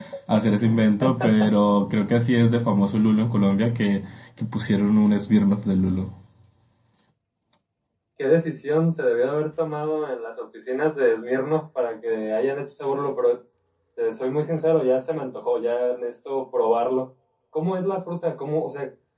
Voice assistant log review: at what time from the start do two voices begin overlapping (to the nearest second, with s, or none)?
none